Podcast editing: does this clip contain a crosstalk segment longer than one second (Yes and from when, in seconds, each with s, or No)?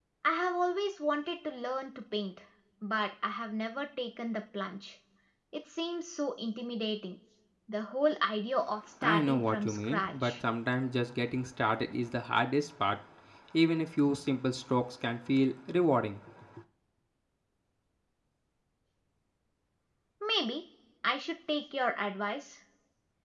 Yes, from 9.0 s